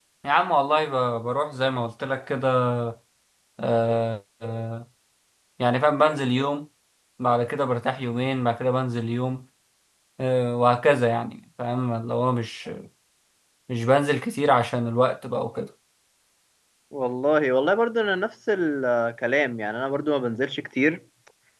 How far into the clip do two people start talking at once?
none

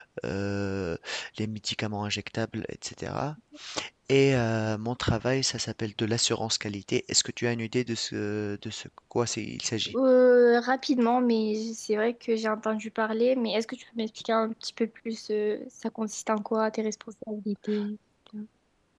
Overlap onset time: none

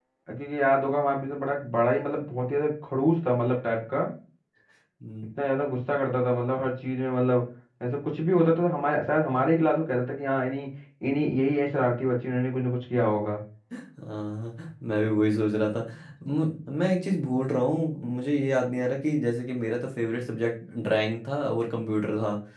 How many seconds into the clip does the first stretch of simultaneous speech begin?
none

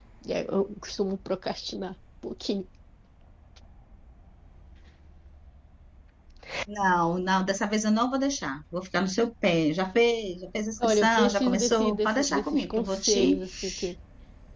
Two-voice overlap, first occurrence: 10.8 s

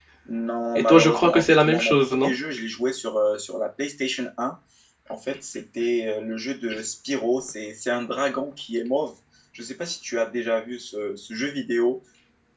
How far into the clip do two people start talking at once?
0.9 s

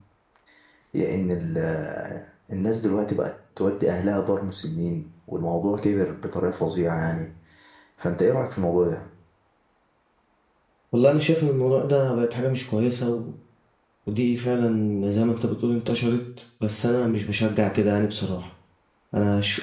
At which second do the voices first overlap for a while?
none

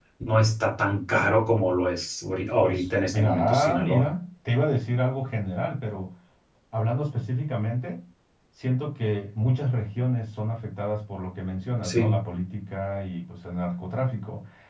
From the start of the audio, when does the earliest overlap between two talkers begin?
2.6 s

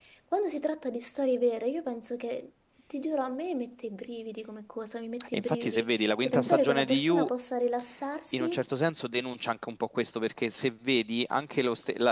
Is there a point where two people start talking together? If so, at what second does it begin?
5.3 s

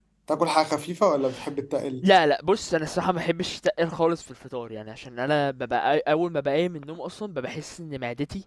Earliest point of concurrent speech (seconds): none

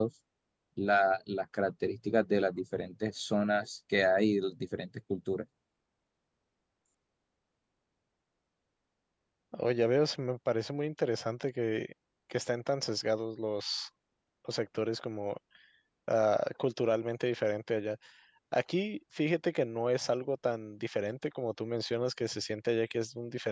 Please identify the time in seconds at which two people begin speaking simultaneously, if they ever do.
none

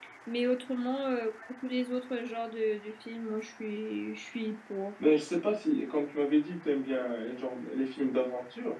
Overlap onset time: none

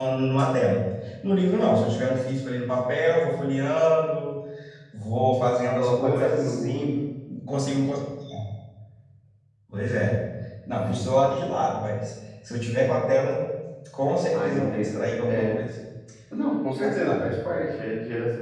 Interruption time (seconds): 5.8 s

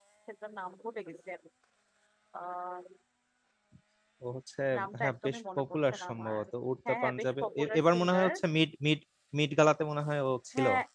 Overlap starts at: 5.0 s

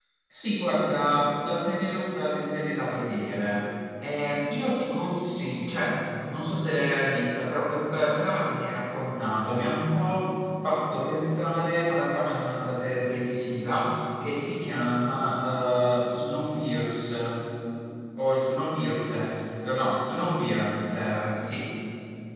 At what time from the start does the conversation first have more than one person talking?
none

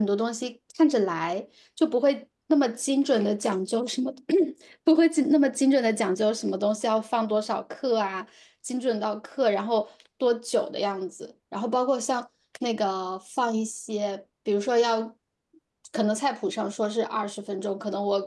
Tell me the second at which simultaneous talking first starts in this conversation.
none

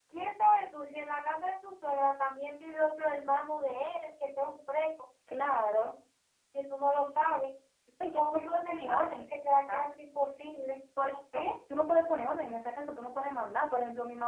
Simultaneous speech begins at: 8.2 s

